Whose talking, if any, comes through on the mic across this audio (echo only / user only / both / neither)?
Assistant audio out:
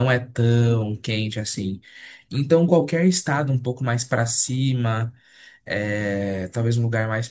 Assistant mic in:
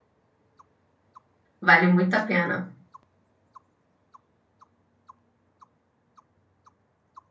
user only